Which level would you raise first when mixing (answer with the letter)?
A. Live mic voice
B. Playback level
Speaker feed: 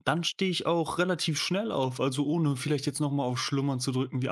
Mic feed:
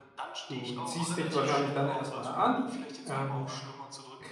B